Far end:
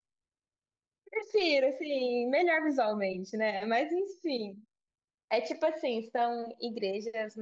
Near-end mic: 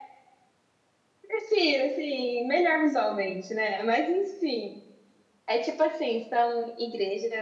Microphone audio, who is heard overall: echo only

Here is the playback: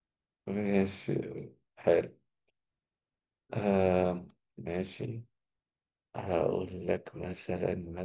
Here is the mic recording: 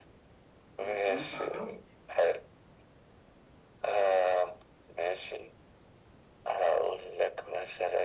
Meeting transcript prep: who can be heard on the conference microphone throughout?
both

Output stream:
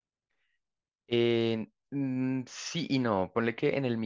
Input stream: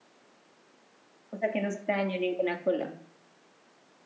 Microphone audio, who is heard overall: user only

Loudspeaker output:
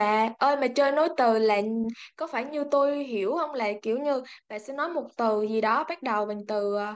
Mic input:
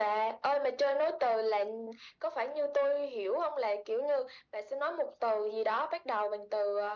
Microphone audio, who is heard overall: echo only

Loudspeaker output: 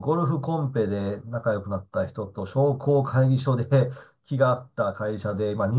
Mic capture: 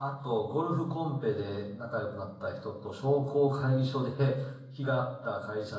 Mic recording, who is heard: echo only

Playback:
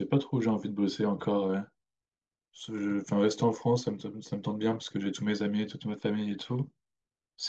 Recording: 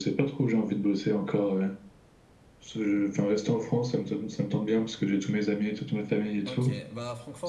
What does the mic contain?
both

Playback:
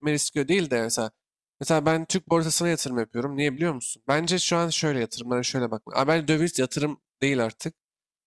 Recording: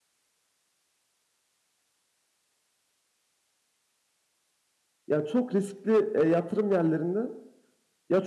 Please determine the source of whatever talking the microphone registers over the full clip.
user only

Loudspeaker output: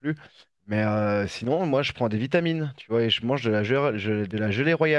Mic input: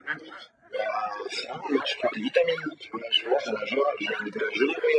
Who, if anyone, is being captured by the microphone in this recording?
echo only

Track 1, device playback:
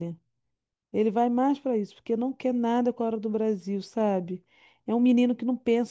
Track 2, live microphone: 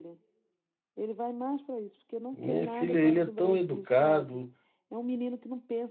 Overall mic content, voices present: both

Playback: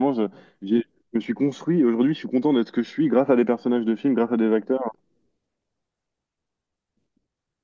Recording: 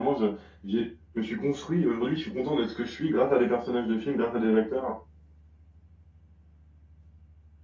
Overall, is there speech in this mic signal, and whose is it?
echo only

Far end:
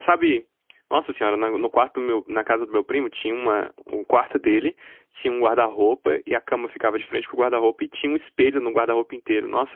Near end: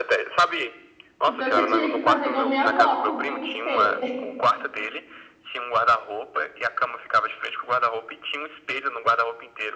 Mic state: both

